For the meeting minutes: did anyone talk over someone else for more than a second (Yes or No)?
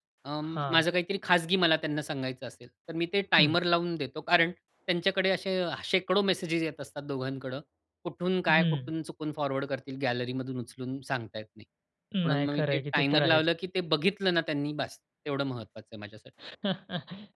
Yes